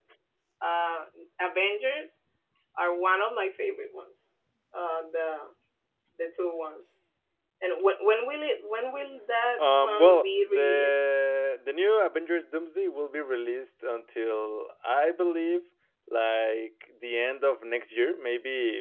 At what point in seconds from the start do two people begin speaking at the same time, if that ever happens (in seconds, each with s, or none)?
9.6 s